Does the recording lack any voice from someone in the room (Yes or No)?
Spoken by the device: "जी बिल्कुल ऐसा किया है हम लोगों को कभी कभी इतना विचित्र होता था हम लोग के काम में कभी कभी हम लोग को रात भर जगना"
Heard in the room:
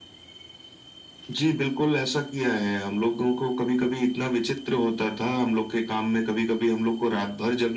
Yes